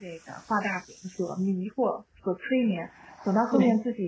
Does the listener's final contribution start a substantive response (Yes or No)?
No